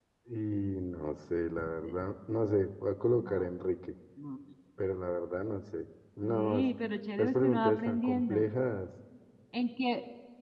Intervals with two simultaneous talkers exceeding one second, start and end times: 7.2-8.4

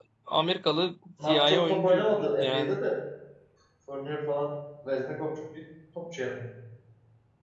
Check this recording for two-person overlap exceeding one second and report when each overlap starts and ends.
1.3-2.8

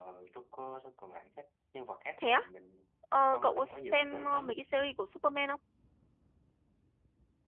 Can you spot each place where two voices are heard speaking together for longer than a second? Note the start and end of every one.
3.1-4.5

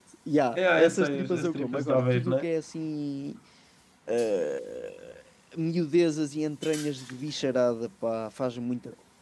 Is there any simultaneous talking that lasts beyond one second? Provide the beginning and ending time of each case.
0.6-2.4

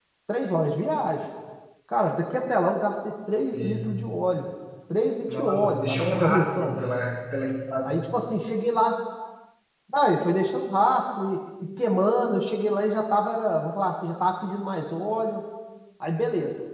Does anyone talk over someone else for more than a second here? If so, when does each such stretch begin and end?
5.3-6.8

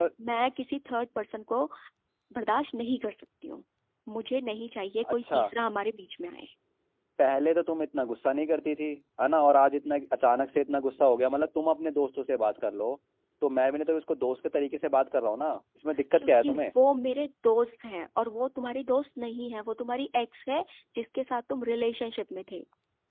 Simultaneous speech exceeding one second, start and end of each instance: none

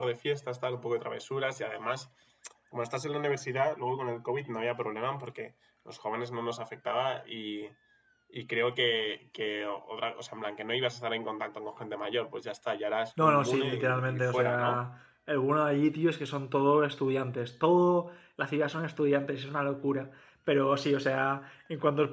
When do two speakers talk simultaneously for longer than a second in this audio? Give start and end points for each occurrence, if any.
13.2-14.8

